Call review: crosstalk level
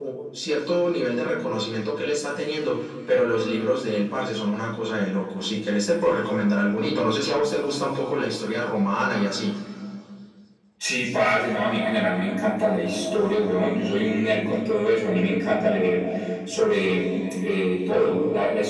none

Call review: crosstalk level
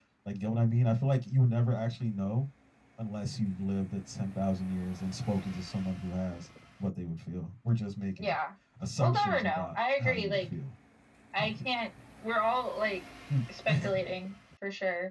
present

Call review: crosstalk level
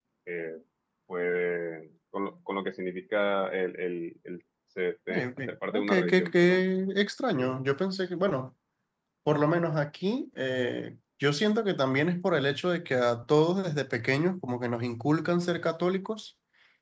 present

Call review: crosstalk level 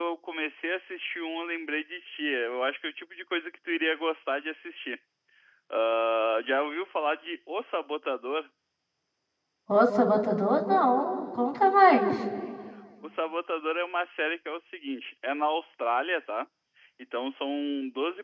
none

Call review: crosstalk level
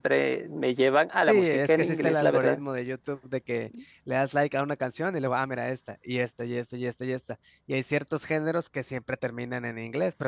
present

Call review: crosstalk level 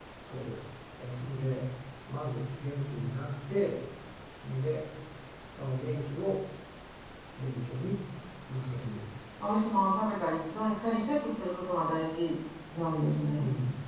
none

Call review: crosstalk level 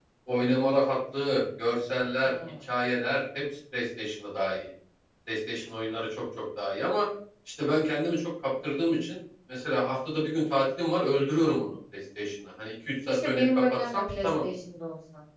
present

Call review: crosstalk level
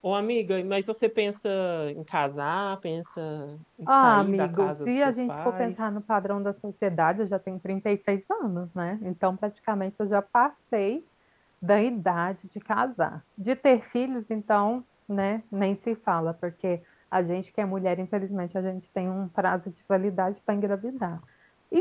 present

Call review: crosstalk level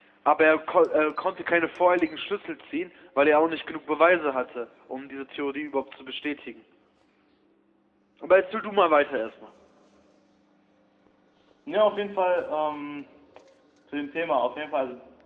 none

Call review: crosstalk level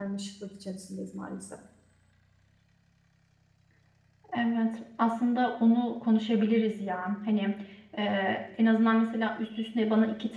none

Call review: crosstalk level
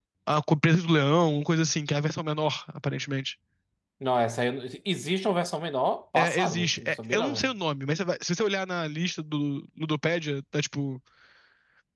present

